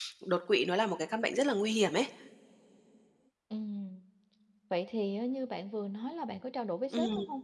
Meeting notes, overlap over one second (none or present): none